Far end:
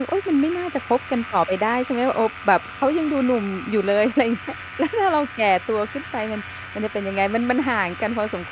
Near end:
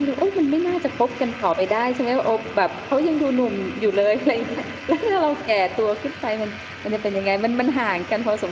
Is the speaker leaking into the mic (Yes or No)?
Yes